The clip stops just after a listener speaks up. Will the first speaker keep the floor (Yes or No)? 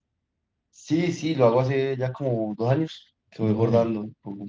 Yes